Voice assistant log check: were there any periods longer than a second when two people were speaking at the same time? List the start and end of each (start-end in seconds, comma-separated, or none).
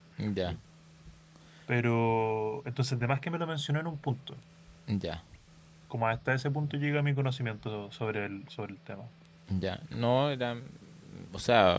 none